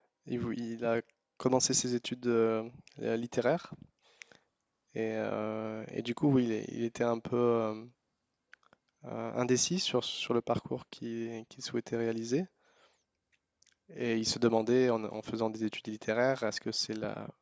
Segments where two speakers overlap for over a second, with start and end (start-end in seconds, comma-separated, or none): none